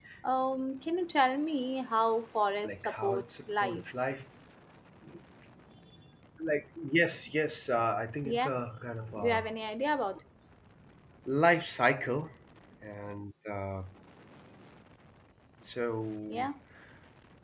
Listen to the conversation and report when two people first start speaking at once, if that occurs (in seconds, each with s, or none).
2.6 s